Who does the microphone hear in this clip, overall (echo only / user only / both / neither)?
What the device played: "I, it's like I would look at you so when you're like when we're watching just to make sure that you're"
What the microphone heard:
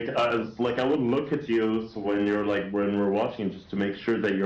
echo only